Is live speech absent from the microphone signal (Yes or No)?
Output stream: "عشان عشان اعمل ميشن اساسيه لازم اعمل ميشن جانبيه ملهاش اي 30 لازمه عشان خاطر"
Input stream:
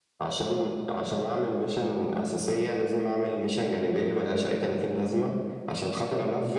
Yes